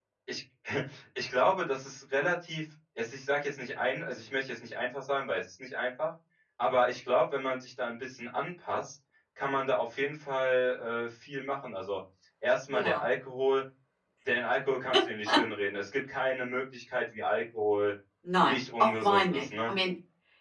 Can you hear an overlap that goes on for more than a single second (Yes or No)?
Yes